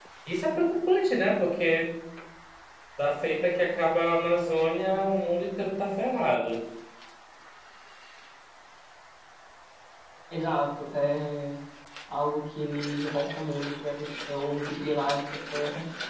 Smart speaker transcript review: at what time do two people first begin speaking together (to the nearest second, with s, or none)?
none